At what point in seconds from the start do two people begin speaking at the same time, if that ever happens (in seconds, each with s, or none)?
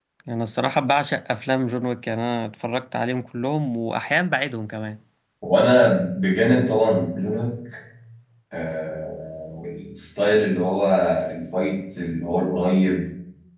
none